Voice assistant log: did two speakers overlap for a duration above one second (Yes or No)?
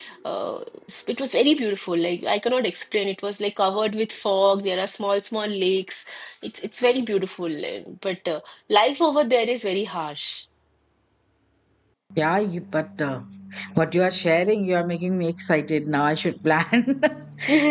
No